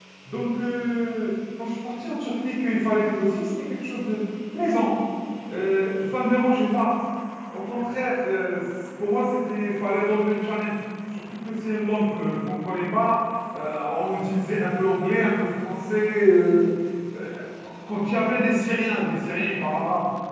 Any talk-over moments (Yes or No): No